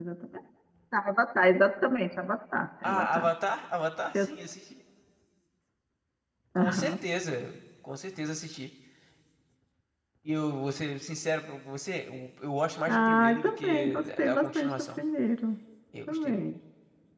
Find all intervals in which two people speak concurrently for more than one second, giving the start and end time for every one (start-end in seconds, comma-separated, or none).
12.9-15.0